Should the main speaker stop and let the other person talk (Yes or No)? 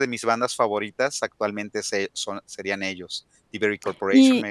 Yes